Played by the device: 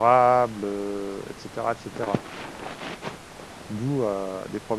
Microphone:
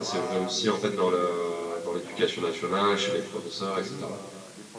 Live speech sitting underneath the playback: No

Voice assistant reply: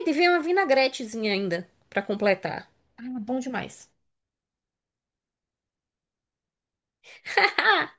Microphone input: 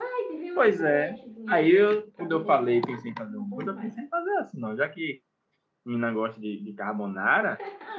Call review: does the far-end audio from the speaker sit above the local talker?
No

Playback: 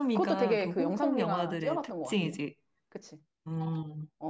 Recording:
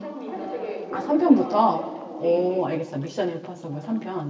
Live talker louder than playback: Yes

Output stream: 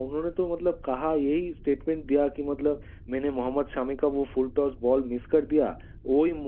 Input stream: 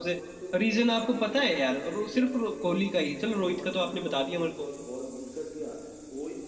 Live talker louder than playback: Yes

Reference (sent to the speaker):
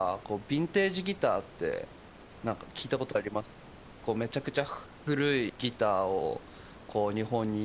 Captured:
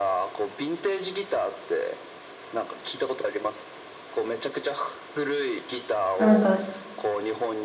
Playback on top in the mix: No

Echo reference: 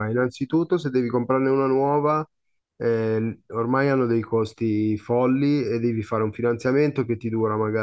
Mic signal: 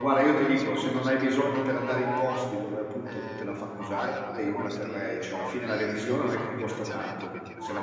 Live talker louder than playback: Yes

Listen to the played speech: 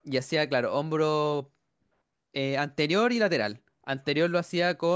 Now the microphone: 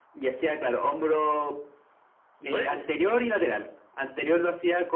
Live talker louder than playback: No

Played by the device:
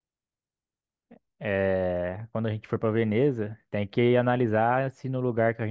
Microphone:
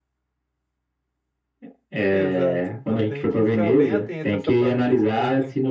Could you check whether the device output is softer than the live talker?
No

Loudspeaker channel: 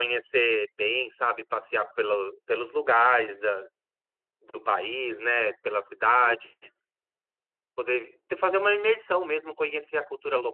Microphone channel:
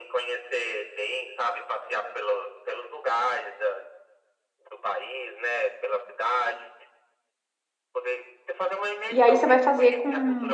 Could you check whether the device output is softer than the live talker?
Yes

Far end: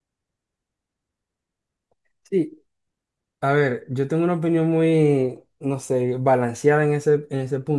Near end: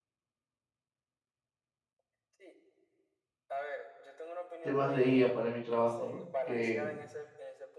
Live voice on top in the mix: Yes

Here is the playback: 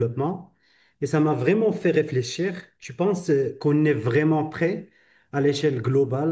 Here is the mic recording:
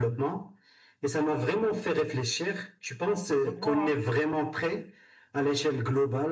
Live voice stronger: No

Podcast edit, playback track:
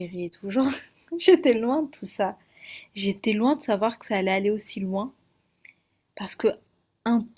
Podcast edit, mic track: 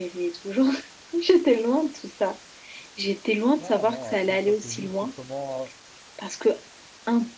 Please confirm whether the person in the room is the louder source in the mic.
No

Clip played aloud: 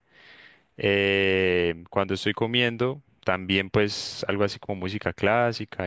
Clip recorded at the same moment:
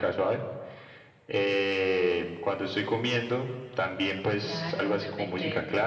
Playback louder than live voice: Yes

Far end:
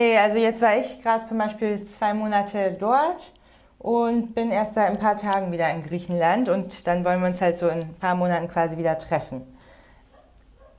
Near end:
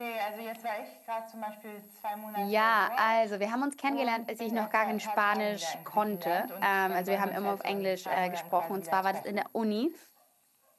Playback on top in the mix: No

